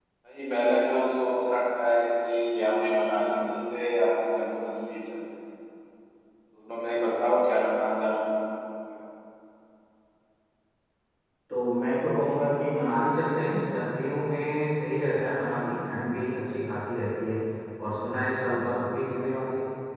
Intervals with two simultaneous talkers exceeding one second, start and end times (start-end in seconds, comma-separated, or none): none